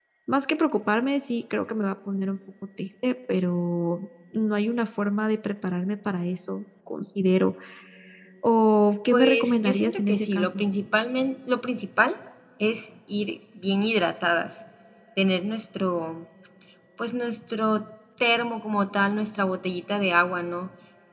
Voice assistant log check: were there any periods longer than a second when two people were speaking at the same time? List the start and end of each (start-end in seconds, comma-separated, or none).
9.1-10.6